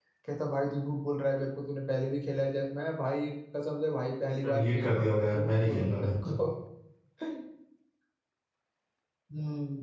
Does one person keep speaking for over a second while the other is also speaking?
Yes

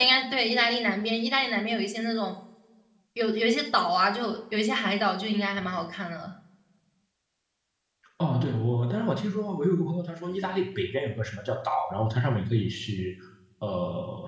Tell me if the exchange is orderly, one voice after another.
Yes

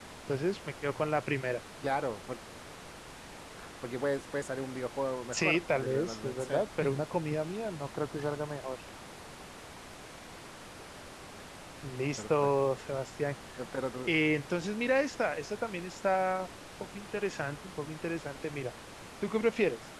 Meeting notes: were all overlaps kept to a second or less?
No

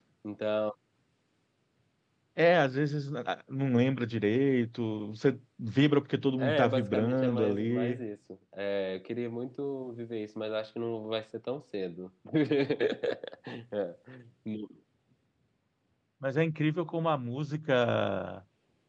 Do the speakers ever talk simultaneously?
Yes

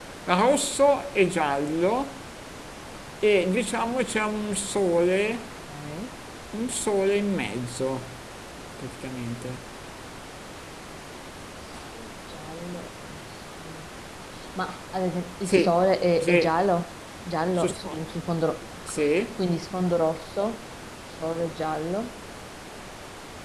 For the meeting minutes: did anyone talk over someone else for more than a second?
No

